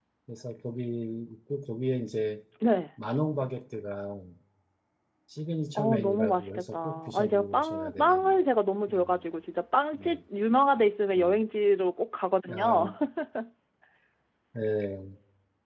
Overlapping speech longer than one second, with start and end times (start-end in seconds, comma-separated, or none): 5.8-8.4